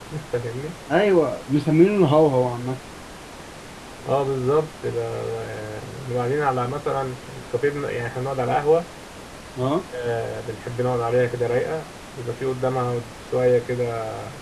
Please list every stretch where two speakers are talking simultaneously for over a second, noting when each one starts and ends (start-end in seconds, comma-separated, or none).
none